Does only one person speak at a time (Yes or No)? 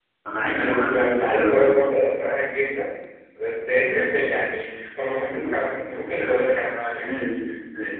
No